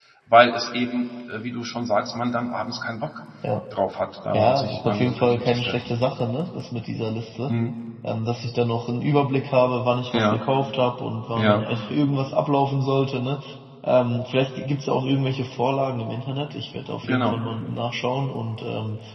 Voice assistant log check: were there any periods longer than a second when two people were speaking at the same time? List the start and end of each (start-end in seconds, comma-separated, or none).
4.3-5.9